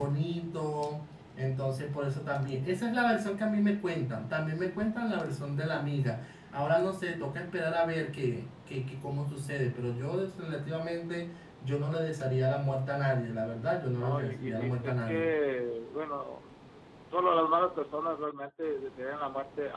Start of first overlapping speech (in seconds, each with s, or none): 14.0 s